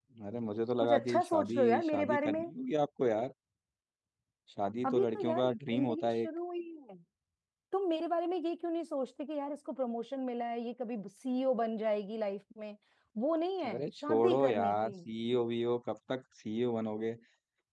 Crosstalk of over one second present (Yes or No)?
Yes